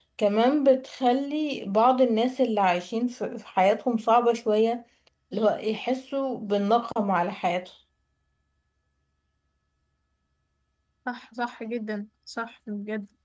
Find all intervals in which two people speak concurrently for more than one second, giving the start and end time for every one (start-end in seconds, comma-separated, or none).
none